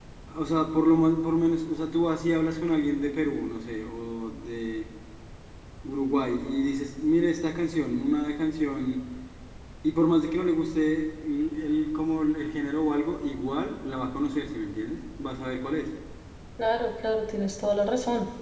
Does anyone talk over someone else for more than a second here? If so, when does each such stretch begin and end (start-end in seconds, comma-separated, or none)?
none